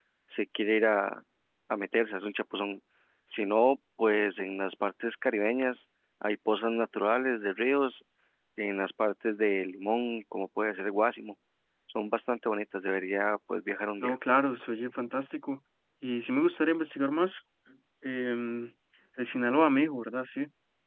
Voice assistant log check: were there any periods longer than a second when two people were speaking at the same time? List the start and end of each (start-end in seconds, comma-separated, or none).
none